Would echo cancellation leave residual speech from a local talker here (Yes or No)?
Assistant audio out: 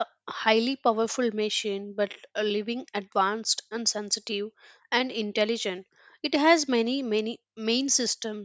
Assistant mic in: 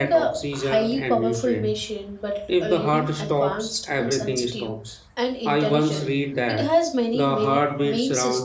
Yes